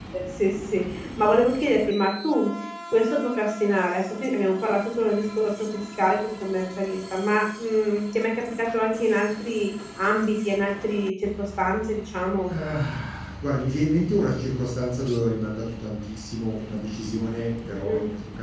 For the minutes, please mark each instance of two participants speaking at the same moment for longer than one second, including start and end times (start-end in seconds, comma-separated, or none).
none